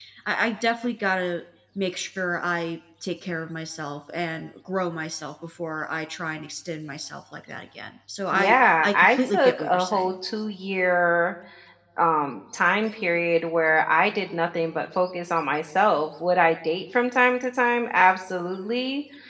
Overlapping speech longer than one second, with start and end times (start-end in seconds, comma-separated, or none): 8.3-10.2